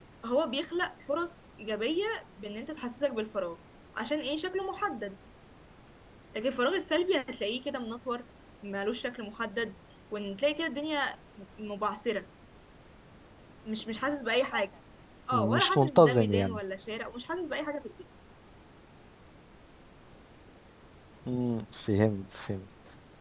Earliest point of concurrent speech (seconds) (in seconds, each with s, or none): 15.3 s